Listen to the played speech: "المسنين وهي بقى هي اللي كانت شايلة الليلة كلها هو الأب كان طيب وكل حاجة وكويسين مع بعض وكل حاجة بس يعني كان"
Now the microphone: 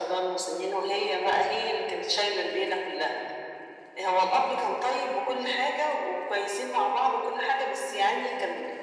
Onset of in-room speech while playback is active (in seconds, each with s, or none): none